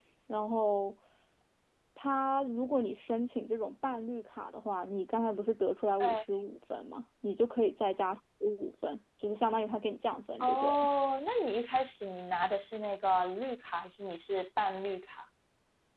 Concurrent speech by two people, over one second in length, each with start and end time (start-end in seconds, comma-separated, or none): none